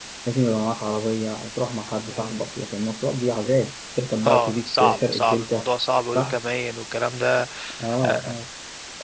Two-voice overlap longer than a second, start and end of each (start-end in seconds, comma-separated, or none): 4.3-5.7